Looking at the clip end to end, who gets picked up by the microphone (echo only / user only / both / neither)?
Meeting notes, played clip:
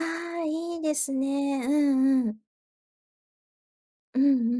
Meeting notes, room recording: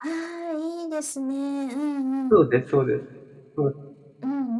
both